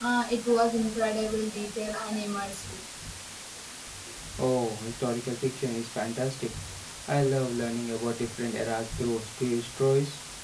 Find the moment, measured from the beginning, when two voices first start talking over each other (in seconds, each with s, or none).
none